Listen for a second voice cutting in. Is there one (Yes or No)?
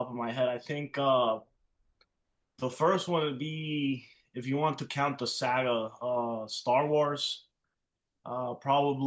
No